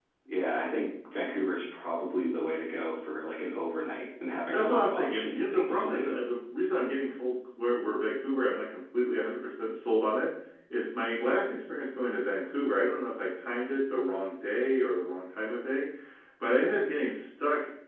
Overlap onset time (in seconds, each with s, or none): 4.5 s